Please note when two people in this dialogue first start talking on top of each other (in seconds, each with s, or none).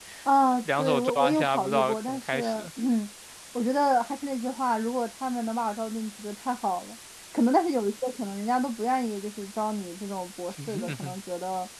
0.6 s